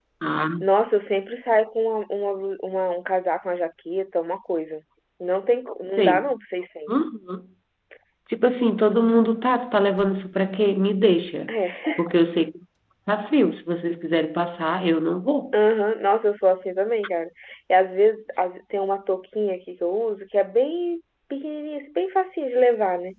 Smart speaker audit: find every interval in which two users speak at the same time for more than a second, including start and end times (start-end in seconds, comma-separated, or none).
none